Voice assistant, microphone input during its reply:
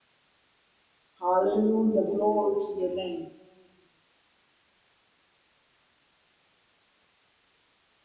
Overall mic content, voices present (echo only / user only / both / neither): user only